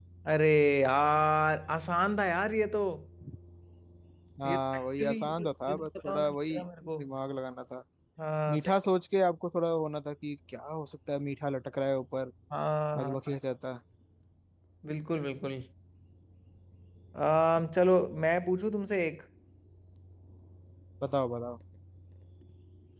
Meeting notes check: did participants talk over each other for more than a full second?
Yes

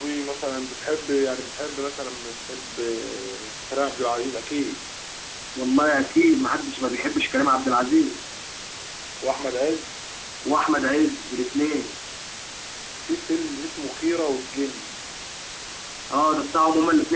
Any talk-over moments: No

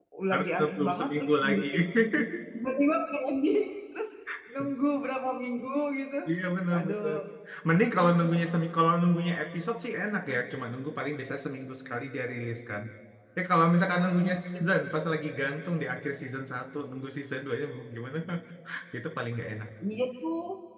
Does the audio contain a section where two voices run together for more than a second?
Yes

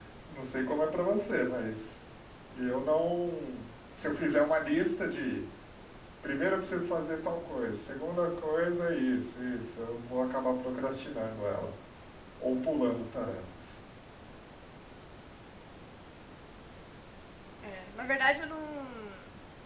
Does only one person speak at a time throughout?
Yes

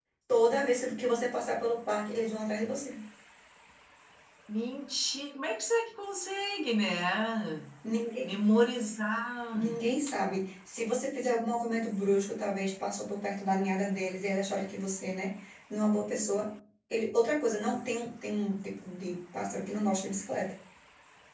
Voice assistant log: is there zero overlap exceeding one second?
Yes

